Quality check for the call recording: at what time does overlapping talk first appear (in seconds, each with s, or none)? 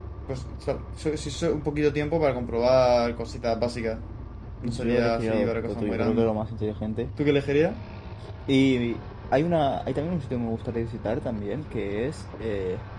4.6 s